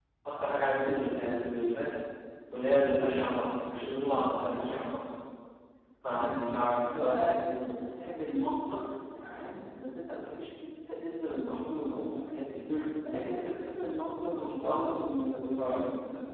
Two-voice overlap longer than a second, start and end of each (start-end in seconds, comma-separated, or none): 6.1-7.4